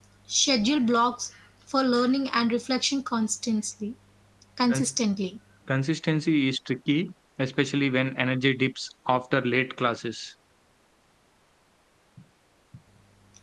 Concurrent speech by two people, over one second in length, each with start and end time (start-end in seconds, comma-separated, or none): none